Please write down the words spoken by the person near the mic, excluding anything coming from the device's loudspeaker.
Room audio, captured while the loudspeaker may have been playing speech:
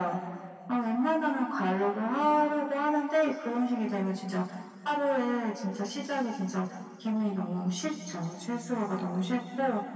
none

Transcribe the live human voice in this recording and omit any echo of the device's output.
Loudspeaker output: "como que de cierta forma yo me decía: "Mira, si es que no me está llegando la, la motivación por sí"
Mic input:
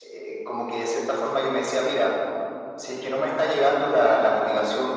none

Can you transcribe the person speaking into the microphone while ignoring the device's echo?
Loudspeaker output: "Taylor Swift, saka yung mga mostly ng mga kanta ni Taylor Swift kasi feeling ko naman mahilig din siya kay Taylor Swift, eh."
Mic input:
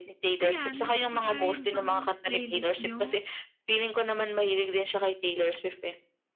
Ayan, kumbaga yan bang playlist nyo

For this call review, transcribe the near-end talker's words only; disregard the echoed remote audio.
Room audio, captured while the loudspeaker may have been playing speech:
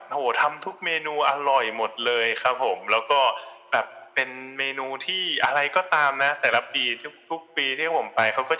none

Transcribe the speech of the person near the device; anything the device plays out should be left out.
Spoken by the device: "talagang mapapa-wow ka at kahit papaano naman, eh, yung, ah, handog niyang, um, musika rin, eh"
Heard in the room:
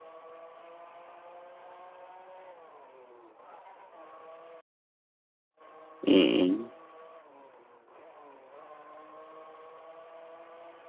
Mm.

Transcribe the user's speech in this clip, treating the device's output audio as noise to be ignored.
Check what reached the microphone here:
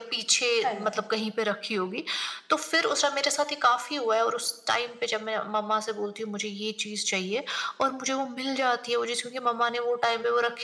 हाँ जी।

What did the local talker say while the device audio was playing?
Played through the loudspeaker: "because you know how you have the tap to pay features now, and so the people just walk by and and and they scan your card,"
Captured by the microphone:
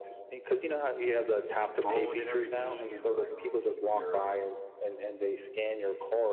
phone and everything, and like um your uh

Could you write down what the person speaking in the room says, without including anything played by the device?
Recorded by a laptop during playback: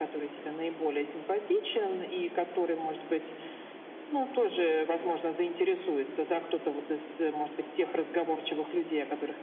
none

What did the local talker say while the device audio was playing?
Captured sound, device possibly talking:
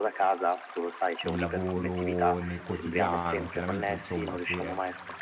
il lavoro nel quotidiano. Chiaramente, insomma, se,

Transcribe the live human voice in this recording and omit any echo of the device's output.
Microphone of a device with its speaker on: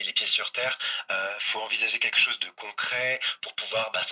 none

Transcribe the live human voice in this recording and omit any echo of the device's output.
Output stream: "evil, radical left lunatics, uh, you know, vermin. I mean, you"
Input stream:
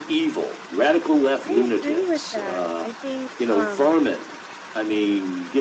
I agree with that. I think um,

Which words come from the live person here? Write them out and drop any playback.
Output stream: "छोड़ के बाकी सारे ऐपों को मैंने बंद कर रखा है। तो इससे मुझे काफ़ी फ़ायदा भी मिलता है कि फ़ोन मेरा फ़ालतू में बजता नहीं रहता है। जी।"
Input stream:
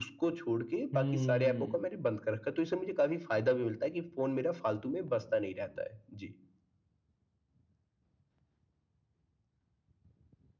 हुँ।

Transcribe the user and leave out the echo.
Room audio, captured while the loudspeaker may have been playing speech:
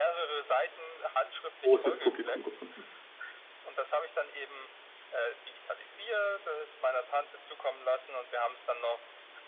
großes Publikum gefunden.

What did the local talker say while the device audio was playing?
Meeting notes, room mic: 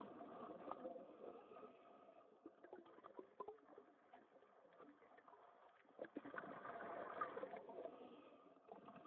none

